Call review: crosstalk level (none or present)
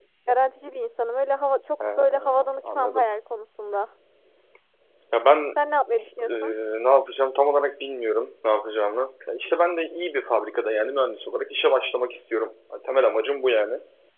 present